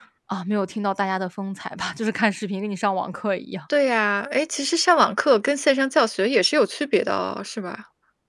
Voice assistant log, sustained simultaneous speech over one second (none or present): none